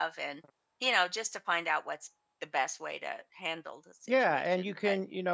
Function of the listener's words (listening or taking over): taking over